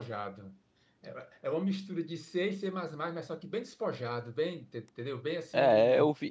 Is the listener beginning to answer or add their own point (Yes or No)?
Yes